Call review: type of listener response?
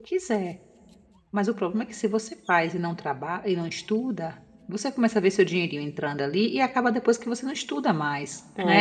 taking over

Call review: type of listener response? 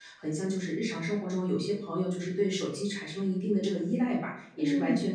listening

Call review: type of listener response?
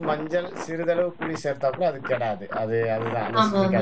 listening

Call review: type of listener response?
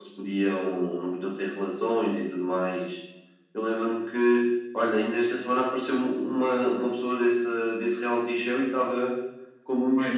listening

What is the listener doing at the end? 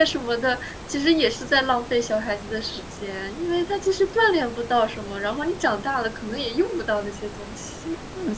taking over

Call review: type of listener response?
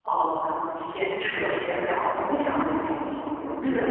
listening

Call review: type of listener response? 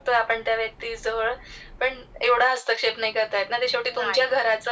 listening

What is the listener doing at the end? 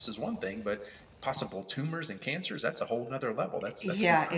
taking over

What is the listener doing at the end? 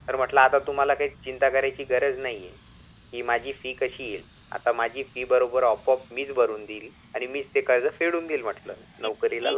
taking over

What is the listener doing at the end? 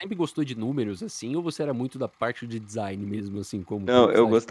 taking over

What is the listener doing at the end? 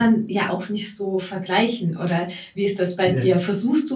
listening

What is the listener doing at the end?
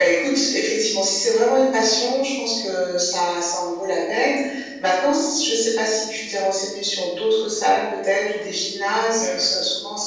listening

